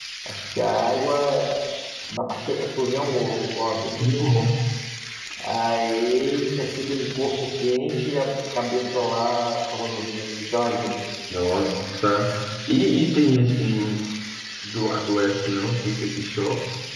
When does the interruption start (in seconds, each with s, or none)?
none